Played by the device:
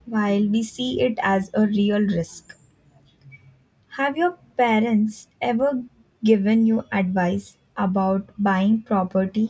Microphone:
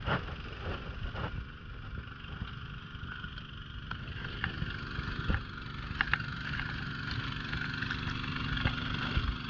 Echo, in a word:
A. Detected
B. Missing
B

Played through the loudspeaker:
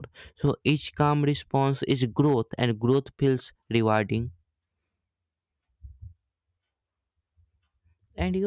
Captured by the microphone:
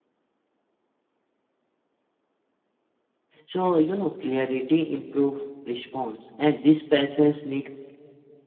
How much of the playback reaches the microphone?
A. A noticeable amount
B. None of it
B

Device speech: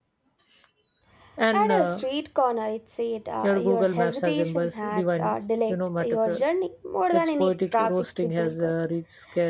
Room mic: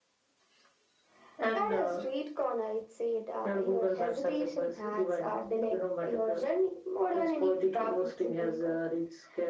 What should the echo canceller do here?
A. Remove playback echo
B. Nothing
A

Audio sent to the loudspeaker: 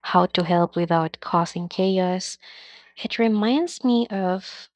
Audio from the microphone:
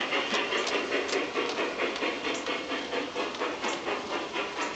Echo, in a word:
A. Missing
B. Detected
A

